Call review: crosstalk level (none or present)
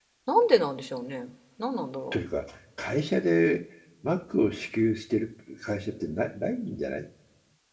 none